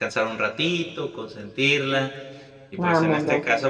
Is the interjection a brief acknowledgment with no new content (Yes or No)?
Yes